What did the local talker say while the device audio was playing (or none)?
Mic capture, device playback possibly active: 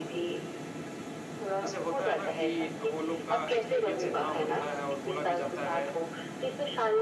जैसे होता है ना कि वो लोग का एक्सपीरियंस इतना होता है और बोला भी जाता है